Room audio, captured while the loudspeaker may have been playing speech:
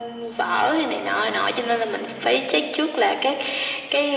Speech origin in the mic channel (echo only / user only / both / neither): echo only